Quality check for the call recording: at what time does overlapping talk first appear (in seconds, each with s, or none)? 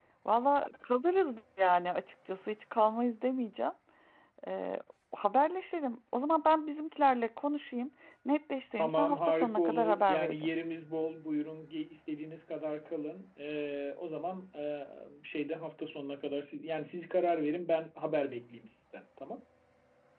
8.8 s